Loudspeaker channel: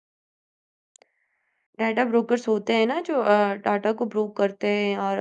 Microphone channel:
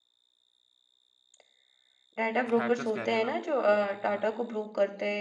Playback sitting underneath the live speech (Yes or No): No